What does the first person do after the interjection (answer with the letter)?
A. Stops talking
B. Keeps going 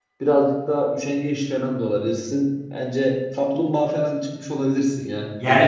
A